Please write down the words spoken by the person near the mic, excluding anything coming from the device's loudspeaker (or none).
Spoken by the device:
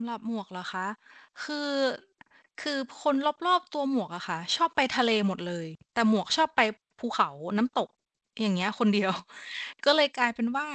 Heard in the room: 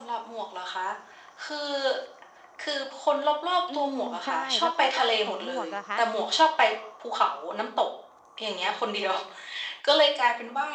อืม ใช่ แล้วก็บ้านของหมวกอะคะ